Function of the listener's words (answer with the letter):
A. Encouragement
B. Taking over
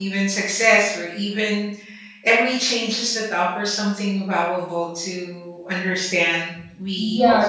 B